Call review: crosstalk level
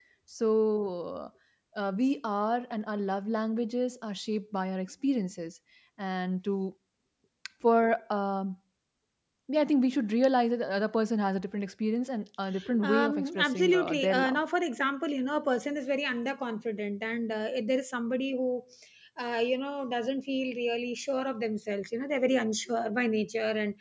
present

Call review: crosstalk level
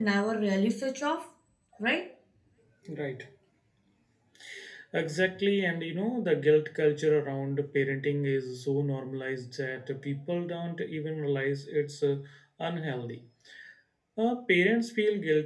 none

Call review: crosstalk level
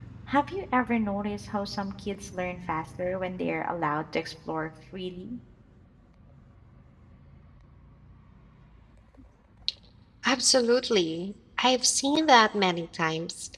none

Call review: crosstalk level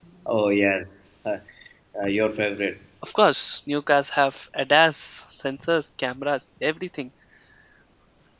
none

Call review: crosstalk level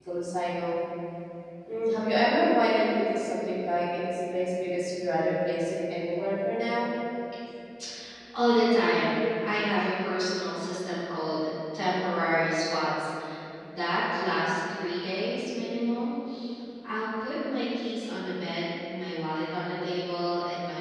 none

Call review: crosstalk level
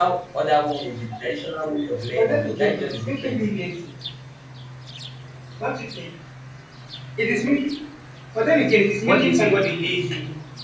present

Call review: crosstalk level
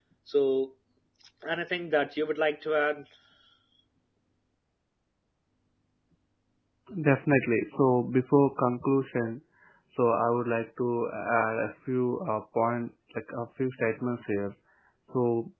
none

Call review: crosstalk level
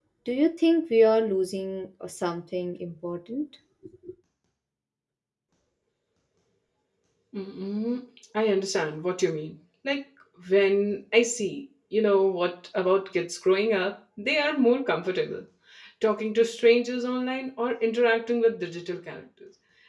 none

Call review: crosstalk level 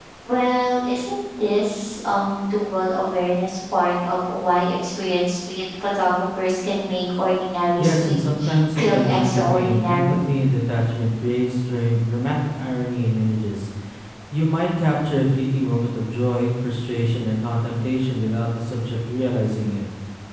present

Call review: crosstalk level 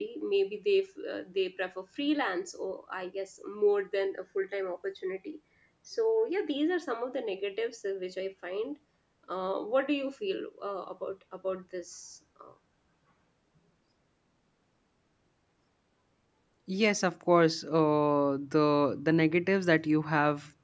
none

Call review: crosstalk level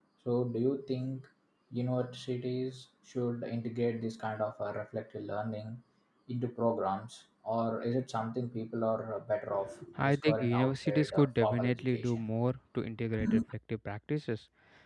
present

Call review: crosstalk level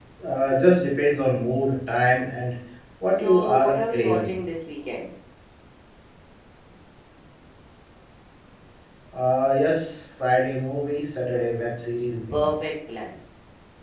present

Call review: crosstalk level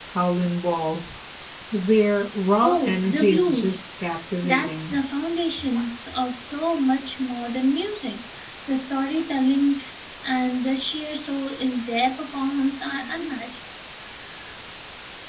present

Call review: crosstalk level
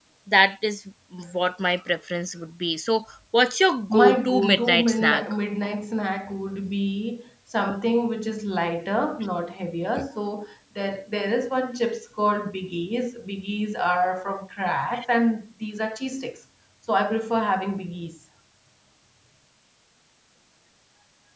present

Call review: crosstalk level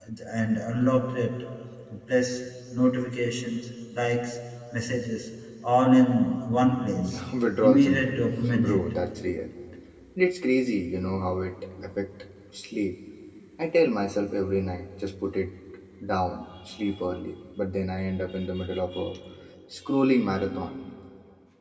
present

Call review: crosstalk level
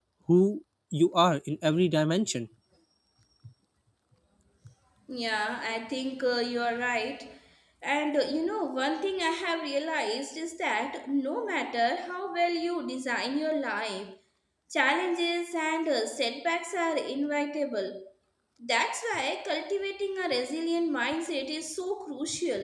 none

